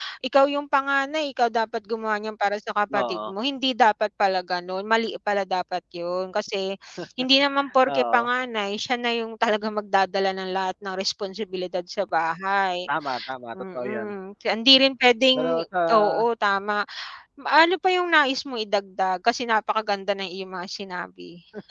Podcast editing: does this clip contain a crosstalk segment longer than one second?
No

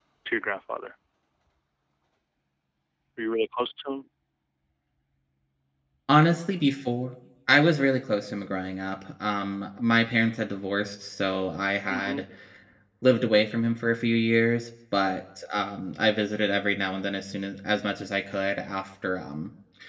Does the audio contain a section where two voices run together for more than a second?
No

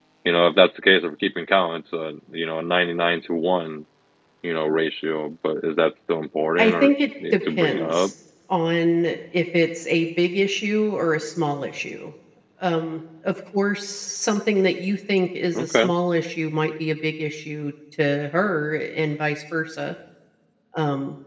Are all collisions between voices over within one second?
No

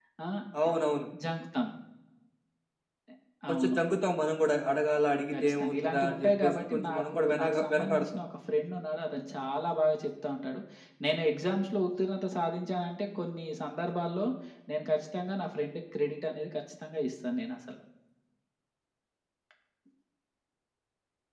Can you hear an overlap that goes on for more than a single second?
Yes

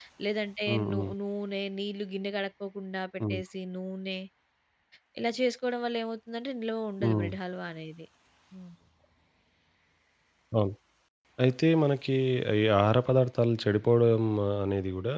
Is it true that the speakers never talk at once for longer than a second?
Yes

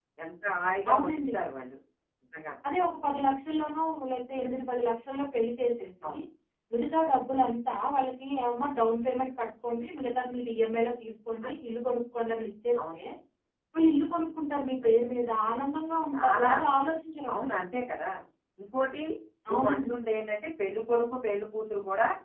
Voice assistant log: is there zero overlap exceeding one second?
Yes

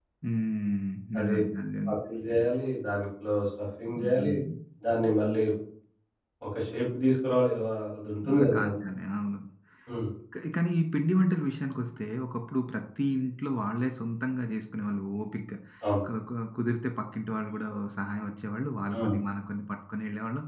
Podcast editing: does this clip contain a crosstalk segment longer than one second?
No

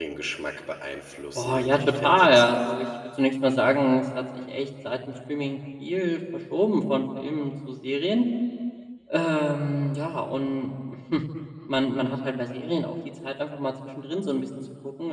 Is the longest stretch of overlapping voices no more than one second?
No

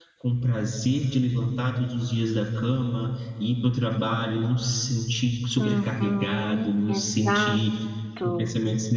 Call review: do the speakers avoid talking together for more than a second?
No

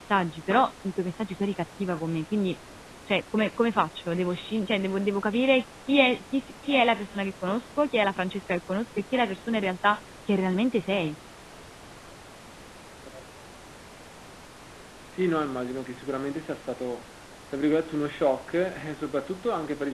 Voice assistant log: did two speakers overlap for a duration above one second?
No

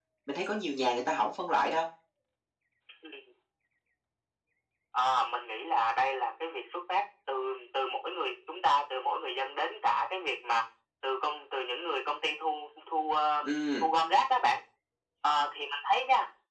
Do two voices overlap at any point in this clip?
No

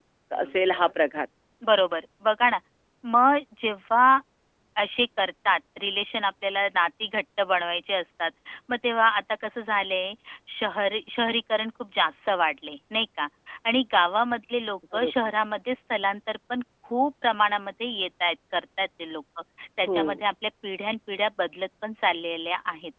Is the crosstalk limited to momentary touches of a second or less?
Yes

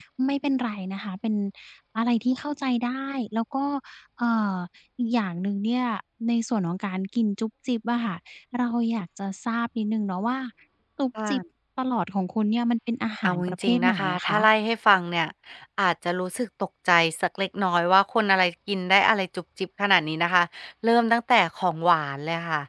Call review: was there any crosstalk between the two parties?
Yes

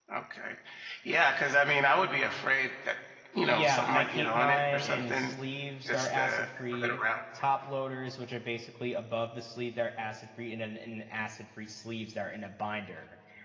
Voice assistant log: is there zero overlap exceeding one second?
No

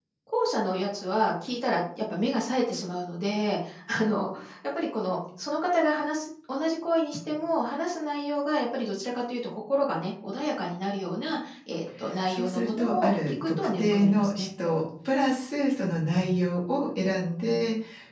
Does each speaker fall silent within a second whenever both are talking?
No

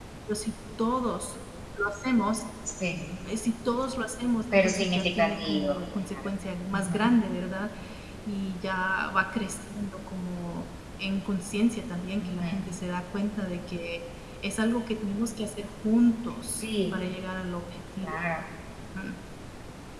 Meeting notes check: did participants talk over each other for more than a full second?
Yes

